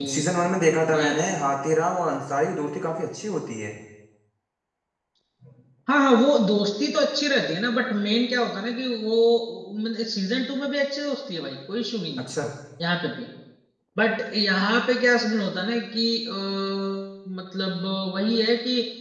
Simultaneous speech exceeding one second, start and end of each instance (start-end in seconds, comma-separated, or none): none